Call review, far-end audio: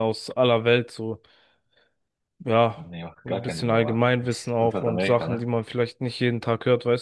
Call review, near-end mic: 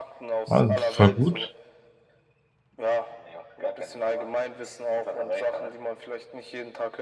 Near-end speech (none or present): present